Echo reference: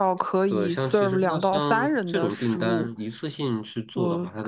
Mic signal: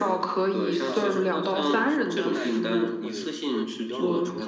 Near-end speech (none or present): present